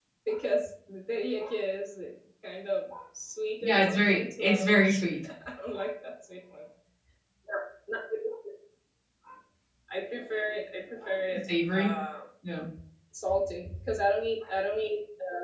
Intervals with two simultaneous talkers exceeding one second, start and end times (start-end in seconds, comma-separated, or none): 3.6-5.2